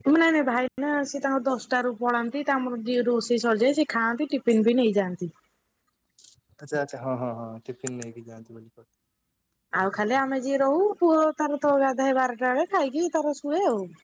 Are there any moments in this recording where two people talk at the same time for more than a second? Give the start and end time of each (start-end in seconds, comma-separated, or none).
none